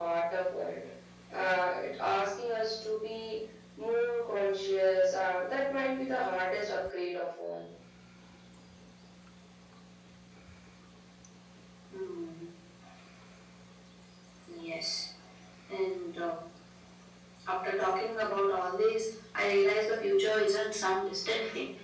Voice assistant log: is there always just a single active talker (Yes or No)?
Yes